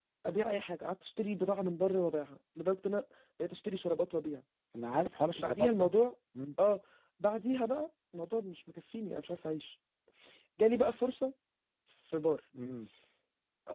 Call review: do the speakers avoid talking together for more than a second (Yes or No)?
Yes